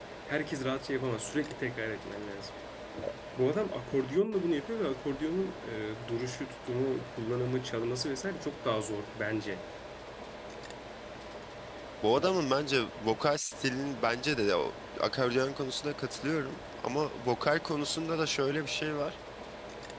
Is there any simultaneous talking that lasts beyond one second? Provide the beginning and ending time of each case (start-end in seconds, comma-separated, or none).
none